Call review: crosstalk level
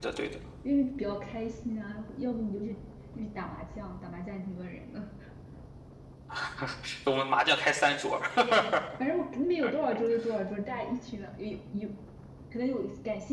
none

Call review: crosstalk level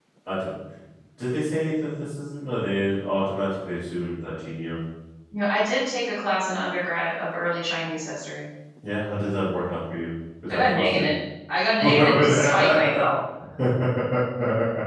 present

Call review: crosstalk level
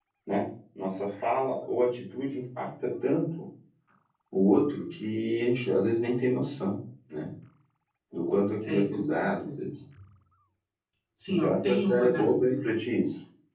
present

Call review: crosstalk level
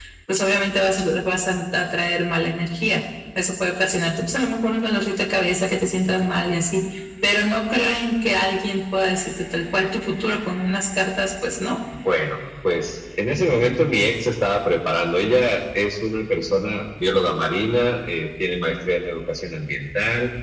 none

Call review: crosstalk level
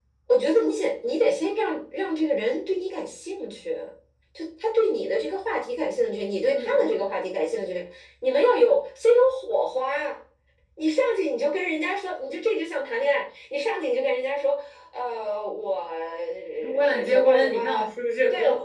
present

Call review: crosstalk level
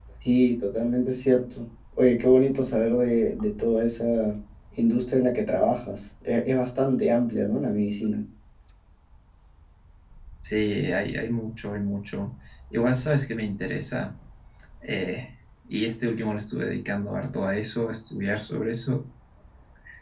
none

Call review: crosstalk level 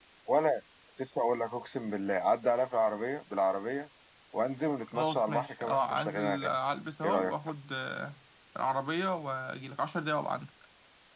present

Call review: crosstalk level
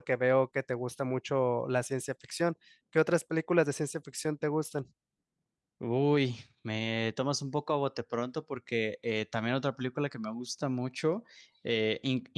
none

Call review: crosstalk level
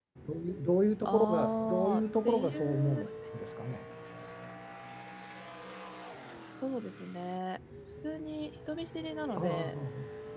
present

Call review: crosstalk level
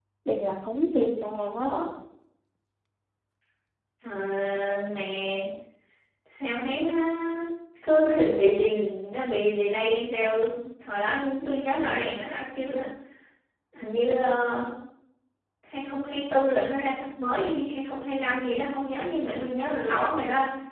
none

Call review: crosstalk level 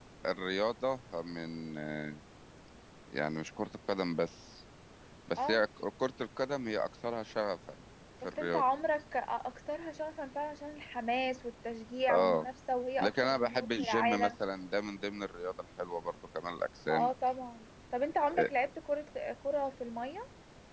present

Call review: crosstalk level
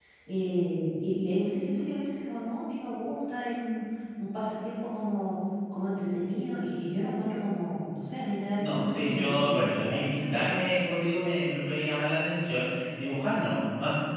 present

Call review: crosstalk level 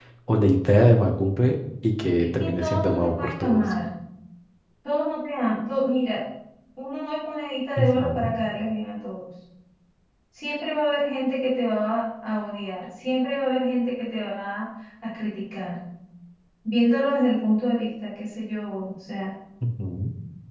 present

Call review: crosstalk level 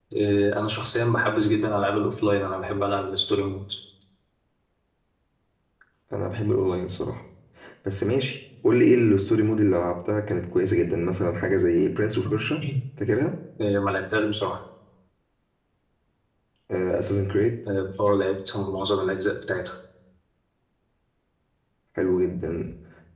none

